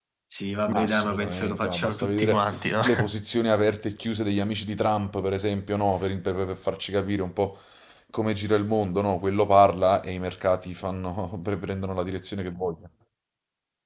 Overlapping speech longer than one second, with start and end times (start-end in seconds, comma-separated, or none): 0.7-2.4